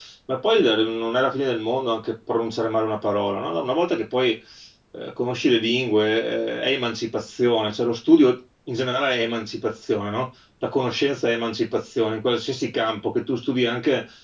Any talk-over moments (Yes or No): No